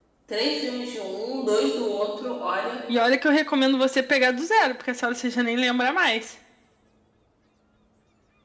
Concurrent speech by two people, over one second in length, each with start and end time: none

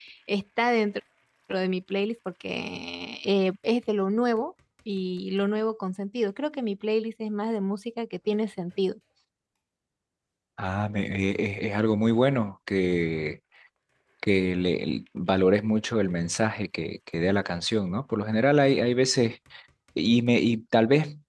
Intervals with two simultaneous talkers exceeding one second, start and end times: none

